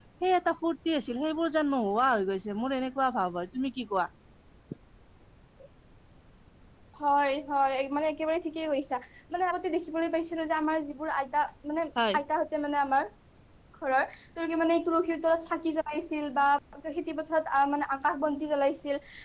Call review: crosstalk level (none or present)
none